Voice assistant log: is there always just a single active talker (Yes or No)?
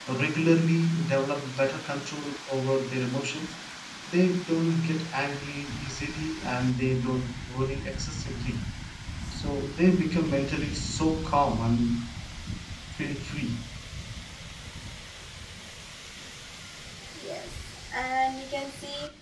Yes